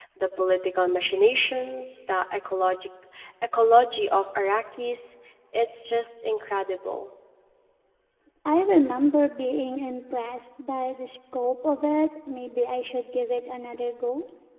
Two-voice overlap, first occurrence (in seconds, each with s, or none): none